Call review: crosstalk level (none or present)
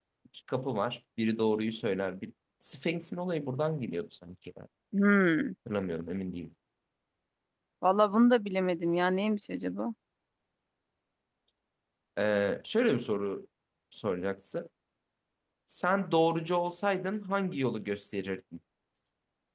none